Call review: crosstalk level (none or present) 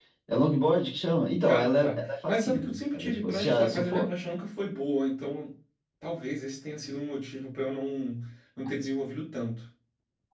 present